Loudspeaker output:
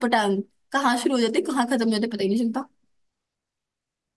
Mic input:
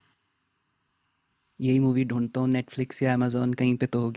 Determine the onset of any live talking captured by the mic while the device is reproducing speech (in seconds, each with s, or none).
1.6 s